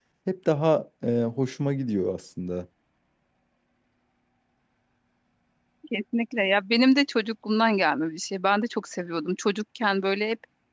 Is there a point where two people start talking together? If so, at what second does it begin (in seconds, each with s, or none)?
none